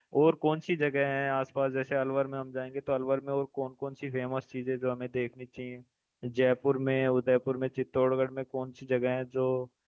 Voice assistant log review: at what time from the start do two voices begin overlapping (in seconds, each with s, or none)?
none